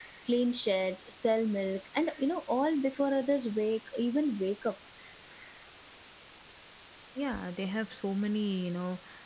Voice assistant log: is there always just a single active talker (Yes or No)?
Yes